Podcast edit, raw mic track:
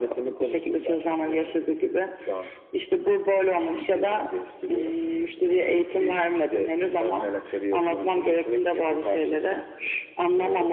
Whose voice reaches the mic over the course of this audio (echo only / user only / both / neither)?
echo only